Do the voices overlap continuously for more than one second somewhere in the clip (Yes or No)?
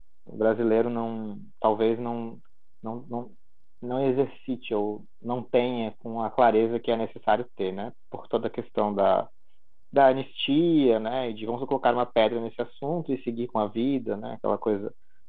No